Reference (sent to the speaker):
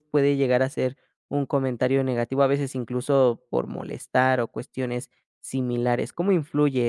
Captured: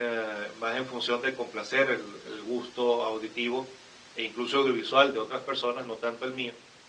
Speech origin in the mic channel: user only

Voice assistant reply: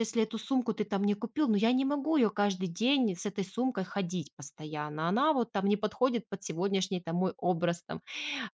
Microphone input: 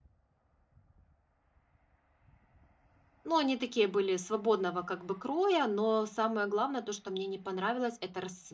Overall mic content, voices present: user only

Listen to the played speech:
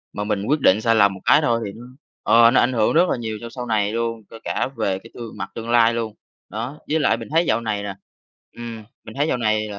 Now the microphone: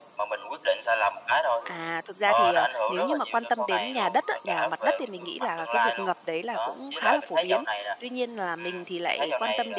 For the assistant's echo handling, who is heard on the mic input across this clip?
both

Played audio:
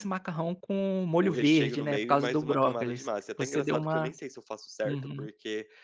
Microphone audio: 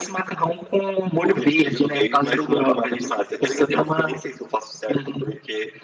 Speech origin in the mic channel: echo only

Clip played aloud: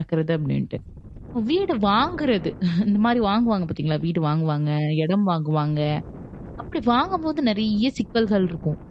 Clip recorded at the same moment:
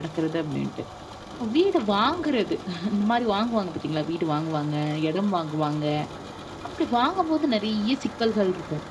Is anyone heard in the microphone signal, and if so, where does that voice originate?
echo only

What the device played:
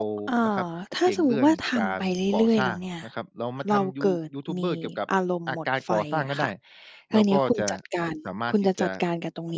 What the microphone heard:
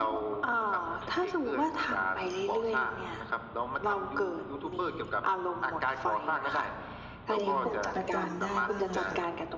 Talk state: both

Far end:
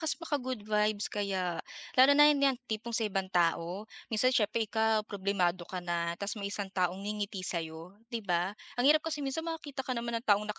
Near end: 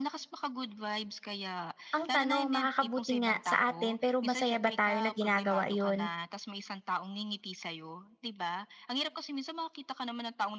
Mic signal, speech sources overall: both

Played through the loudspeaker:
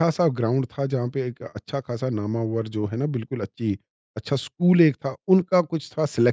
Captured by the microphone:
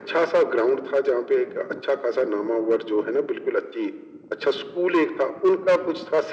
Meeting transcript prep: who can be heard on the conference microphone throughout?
echo only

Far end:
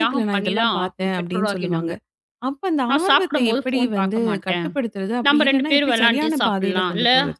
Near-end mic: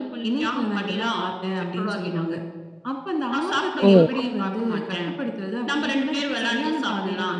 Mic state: both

